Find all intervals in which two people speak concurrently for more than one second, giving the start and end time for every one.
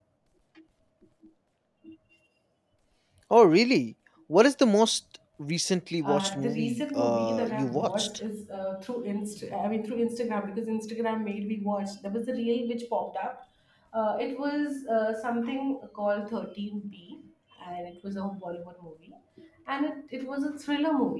6.0-8.1

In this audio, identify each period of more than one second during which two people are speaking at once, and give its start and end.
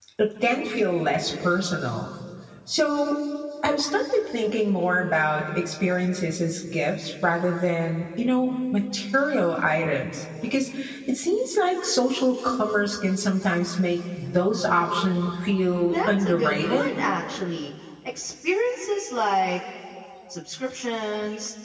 15.6-16.9

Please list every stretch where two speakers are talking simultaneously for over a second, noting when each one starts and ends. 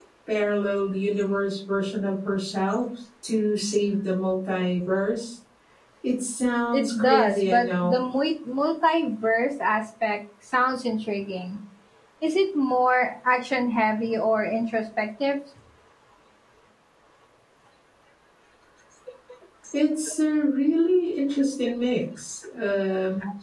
6.7-8.0

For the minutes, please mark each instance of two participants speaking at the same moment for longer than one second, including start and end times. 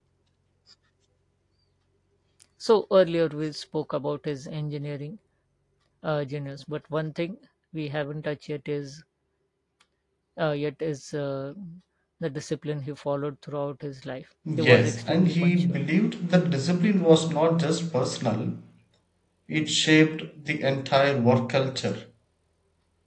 14.6-15.8

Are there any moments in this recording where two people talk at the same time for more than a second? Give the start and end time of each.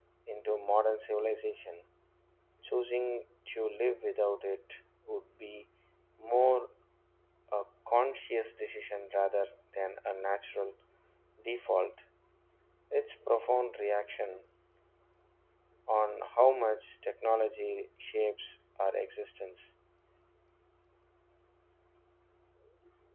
none

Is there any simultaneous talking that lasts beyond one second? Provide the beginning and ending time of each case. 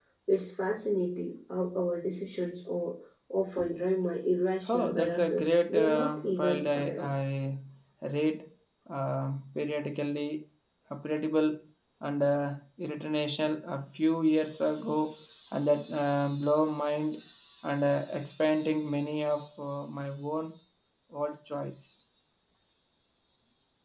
4.7-7.1

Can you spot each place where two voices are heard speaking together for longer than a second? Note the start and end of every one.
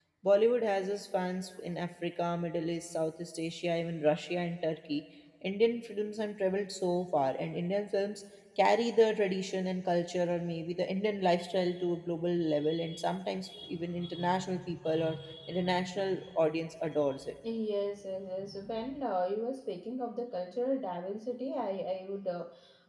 none

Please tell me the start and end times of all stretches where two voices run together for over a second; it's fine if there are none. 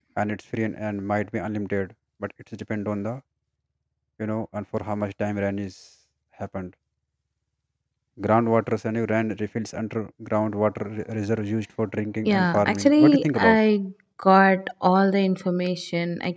12.2-13.6

